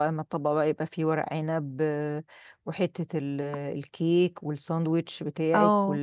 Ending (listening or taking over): taking over